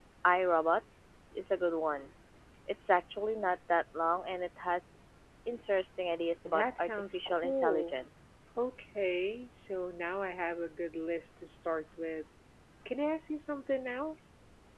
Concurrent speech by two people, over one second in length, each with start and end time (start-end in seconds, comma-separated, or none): 6.4-8.0